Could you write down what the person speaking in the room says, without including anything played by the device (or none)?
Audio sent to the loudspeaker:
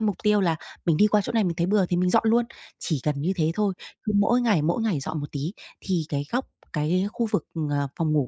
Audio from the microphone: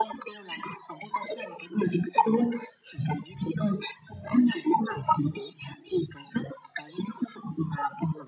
none